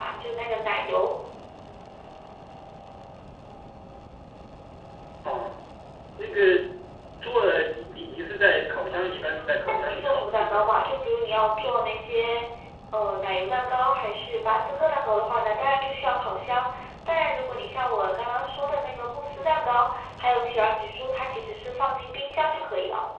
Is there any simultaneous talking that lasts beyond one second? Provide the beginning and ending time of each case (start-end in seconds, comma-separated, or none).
8.9-10.6